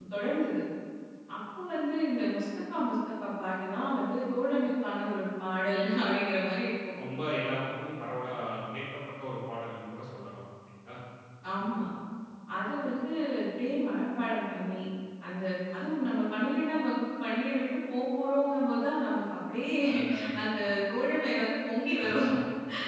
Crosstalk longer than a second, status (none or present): none